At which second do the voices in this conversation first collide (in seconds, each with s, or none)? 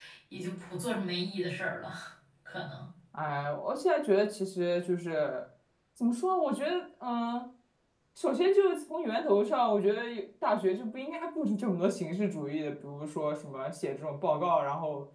none